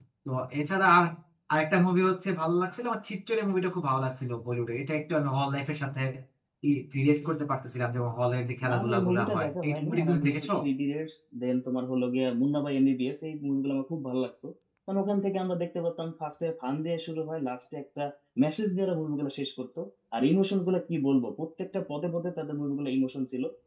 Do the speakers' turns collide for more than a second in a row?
Yes, from 8.6 s

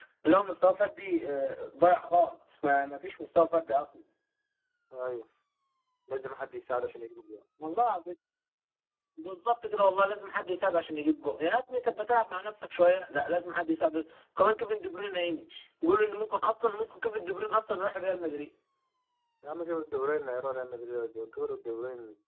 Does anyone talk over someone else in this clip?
No

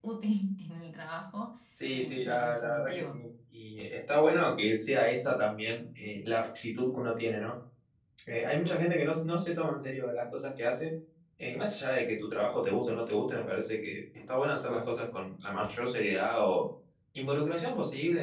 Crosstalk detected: Yes, from 1.9 s

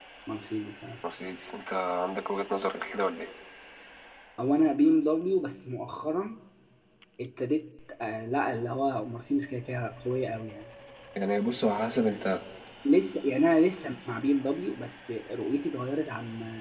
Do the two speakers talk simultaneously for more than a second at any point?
No

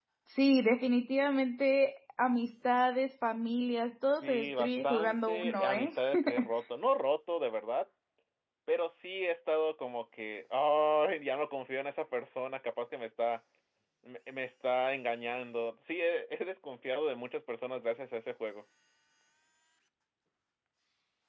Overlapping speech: Yes, from 4.2 s

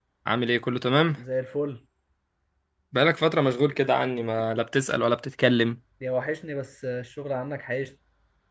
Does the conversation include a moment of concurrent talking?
No

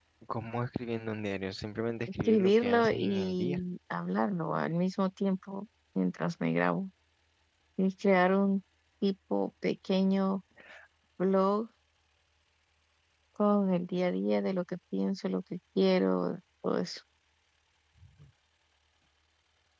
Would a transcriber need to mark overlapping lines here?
Yes, from 2.2 s

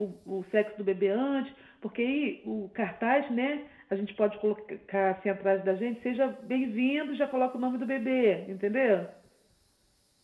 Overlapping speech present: No

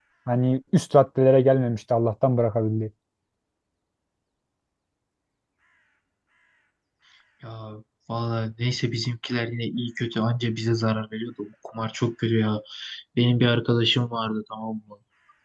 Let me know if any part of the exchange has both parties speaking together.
No

